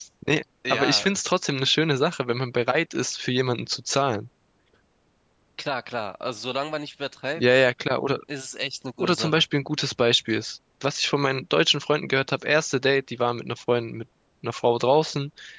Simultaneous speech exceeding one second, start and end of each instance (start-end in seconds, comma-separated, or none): none